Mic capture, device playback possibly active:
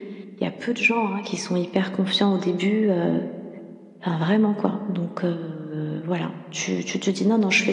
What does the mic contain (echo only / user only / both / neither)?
echo only